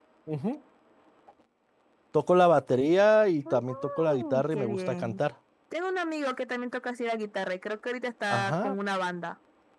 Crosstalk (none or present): present